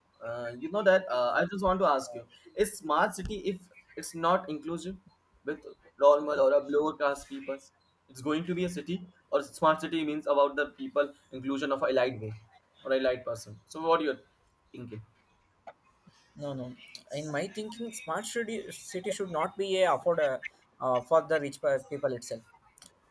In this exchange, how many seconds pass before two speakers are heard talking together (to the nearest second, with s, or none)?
none